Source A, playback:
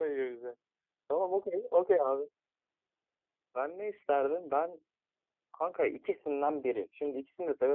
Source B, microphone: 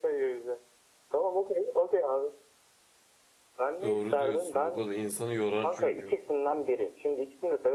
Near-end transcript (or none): Doğru diyorsun. Bak o da insanı yorar çünkü.